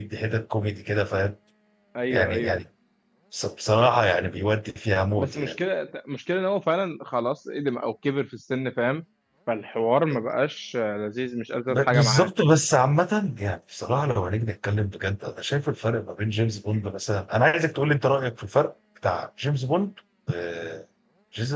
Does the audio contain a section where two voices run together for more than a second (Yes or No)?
No